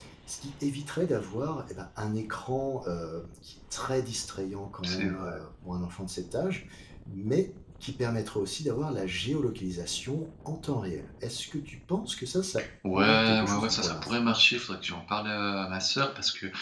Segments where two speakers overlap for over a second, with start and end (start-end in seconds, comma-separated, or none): 12.9-14.2